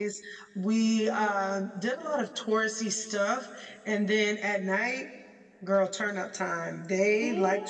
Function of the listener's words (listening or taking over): listening